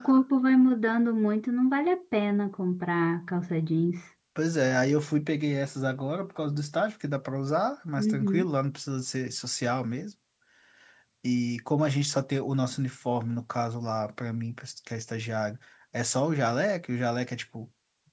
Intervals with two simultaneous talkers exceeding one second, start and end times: none

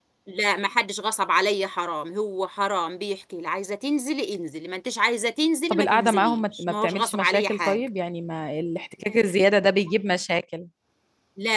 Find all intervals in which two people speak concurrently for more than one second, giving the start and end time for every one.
5.7-7.8

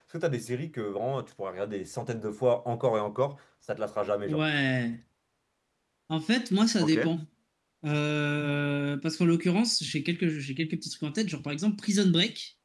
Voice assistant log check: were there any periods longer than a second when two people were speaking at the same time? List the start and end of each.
none

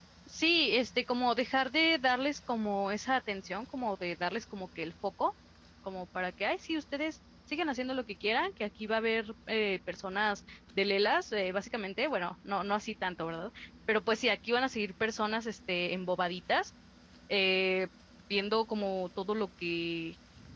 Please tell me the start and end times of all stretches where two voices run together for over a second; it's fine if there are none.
none

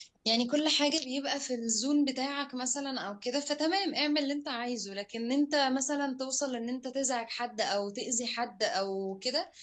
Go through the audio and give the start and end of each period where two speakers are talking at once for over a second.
none

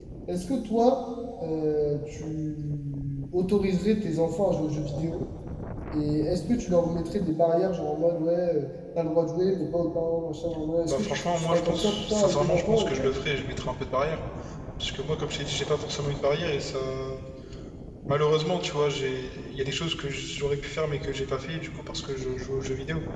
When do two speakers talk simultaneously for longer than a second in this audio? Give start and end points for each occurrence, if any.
10.9-13.1

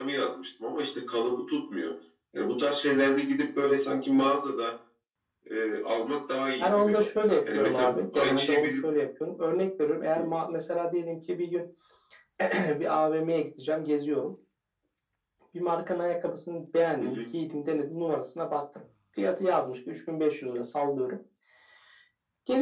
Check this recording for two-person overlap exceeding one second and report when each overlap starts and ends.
7.4-8.9

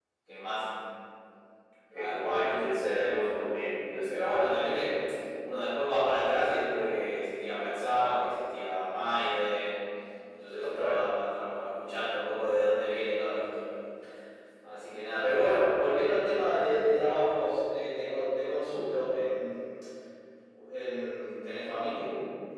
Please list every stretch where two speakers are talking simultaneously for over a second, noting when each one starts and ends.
2.2-4.1

